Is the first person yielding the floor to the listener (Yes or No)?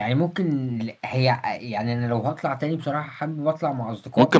Yes